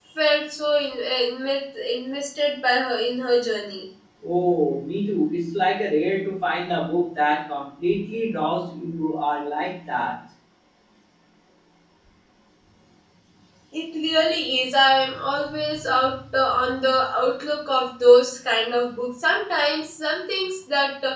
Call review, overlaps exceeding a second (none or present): none